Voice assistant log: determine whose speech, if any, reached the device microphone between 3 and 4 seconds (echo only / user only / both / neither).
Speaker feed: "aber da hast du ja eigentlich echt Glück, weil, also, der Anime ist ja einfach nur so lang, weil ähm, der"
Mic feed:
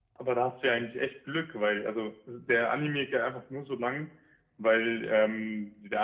echo only